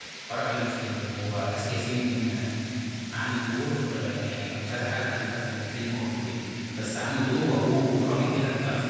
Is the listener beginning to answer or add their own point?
No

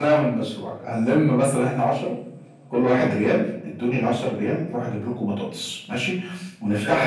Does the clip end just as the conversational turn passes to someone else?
No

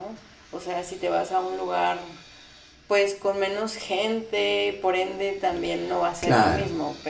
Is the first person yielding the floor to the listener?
No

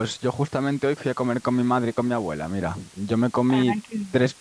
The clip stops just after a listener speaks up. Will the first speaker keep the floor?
Yes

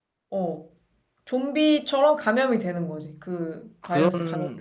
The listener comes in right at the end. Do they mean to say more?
Yes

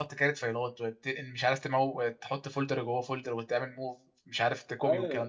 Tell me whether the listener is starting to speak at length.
Yes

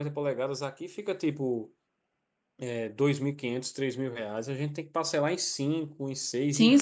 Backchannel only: No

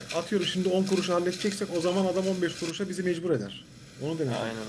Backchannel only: No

